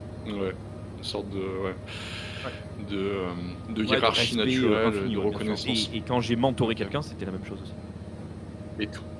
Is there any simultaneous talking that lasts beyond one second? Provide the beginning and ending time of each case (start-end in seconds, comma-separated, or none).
3.9-5.9